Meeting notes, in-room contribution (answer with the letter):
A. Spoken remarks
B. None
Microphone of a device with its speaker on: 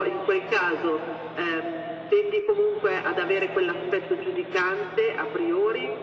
B